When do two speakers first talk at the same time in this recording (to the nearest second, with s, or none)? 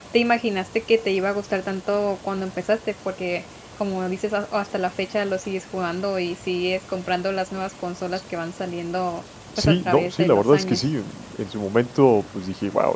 10 s